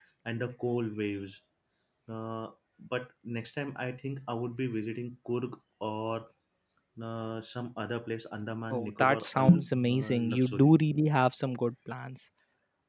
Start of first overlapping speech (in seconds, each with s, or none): 8.7 s